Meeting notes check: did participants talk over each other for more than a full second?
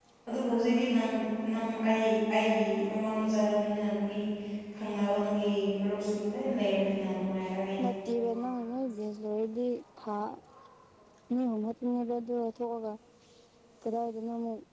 No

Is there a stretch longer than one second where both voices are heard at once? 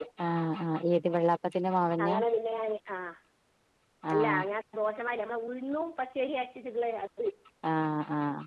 No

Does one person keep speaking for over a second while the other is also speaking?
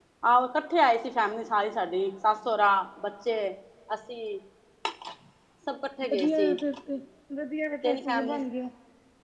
No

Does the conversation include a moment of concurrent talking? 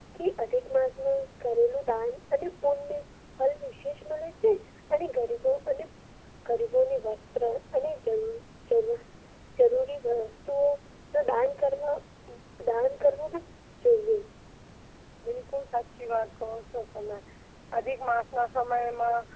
No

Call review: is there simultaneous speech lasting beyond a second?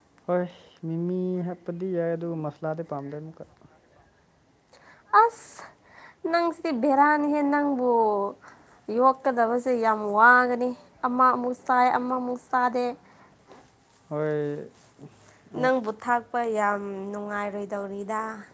No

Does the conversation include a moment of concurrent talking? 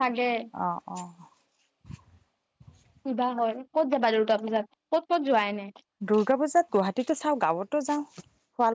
No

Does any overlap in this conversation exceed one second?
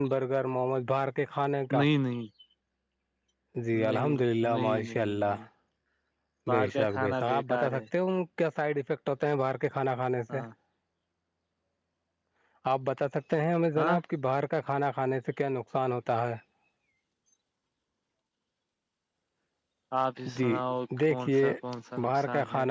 Yes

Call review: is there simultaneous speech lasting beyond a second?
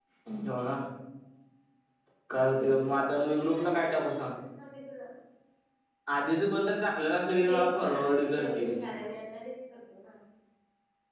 Yes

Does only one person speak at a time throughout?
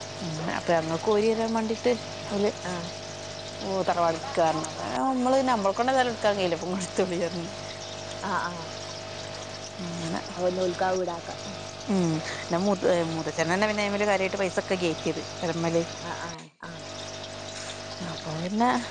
Yes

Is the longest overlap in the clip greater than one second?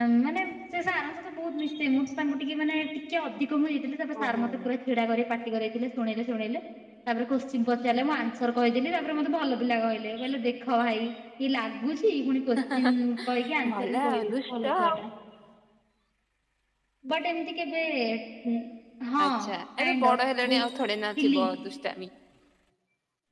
Yes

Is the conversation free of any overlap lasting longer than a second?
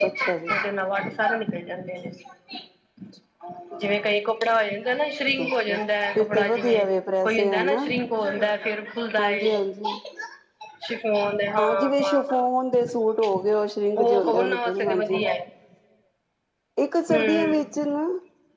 No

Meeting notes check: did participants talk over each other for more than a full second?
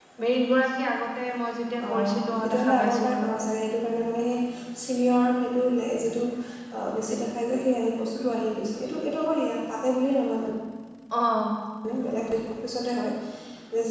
Yes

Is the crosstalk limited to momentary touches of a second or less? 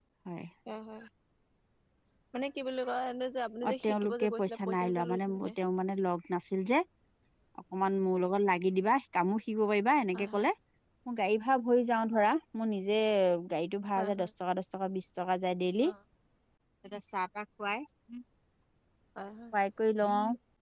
No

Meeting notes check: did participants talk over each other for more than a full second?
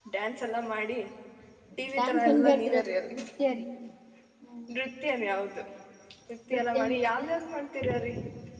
Yes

